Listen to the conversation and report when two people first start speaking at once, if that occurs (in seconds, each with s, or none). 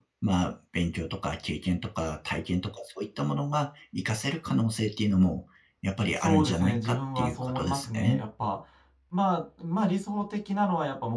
6.2 s